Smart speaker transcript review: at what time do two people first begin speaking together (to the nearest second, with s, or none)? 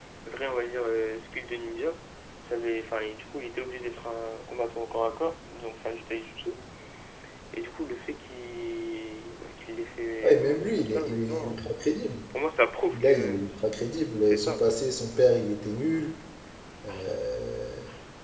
10 s